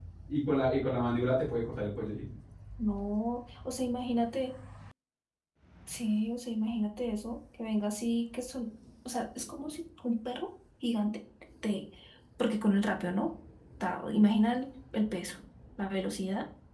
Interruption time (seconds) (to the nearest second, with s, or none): none